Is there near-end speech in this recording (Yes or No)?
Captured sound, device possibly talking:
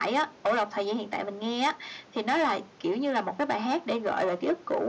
No